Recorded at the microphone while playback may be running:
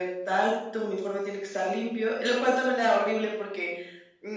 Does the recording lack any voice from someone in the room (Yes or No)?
Yes